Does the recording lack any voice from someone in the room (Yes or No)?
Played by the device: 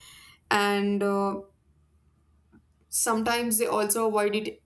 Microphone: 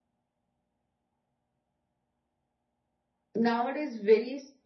No